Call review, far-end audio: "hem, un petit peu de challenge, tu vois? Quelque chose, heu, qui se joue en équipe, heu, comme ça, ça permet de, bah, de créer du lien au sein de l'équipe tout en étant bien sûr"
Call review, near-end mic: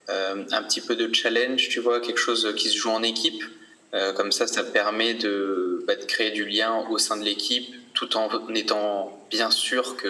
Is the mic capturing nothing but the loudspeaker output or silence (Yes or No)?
Yes